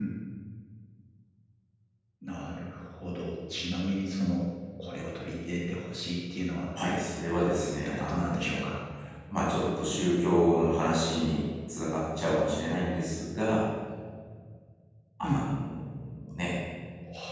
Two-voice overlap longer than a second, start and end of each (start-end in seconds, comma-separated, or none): 7.4-8.7